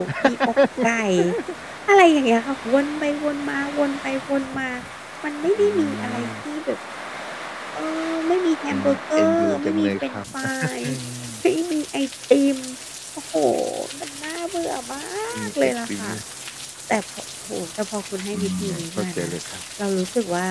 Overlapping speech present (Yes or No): Yes